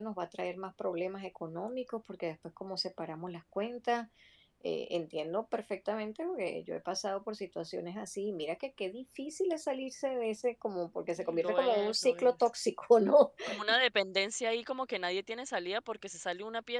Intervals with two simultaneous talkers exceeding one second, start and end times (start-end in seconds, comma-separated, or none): 11.1-12.3